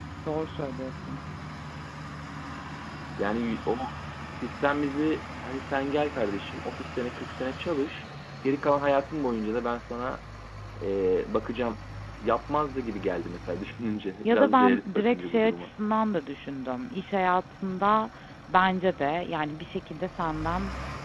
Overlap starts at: 14.2 s

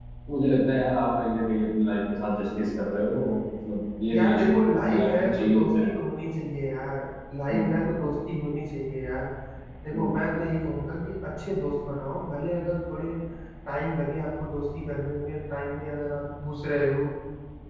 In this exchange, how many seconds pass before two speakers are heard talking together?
4.1 s

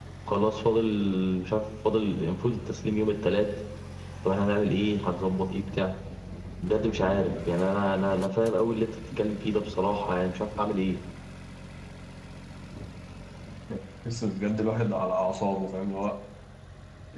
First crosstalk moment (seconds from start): none

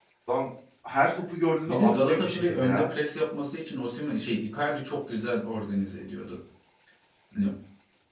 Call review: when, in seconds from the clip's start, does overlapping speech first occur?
1.7 s

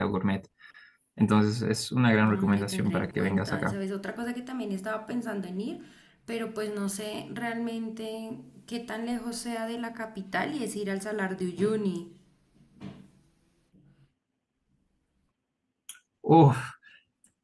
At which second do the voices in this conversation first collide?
2.2 s

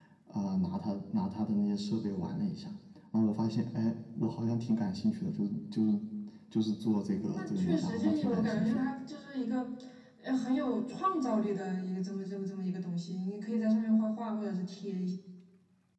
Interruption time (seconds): 7.3 s

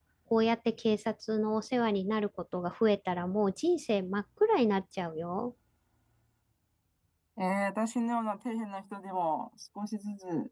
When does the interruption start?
none

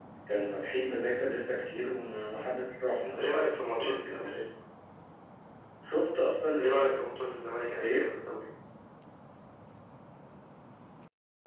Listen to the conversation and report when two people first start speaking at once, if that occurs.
3.0 s

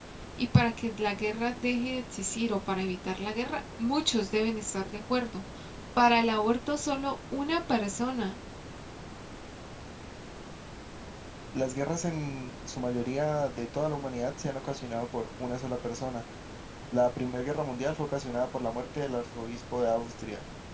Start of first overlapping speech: none

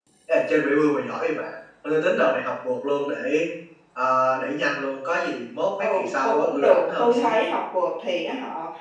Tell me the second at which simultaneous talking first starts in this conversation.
5.8 s

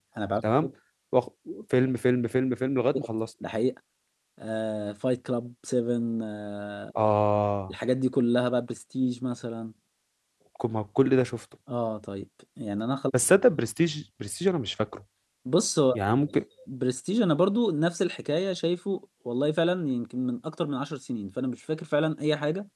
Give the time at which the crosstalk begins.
none

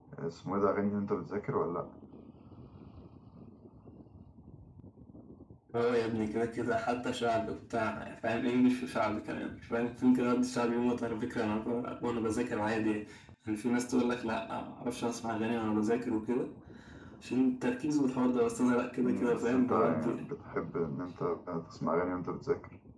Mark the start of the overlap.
19.0 s

